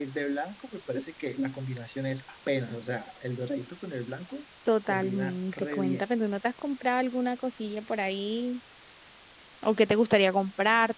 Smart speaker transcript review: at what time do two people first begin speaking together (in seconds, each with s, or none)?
4.7 s